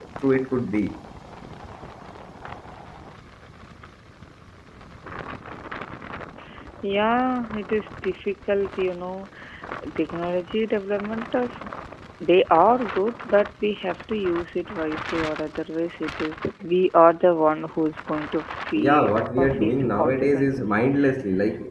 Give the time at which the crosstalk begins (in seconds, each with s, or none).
18.8 s